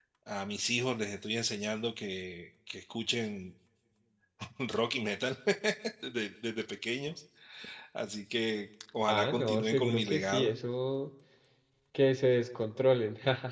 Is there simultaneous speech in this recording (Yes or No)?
Yes